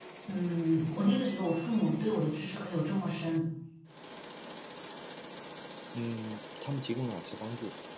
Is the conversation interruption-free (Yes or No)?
Yes